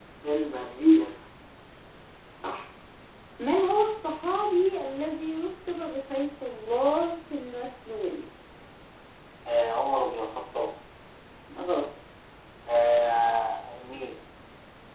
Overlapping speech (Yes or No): No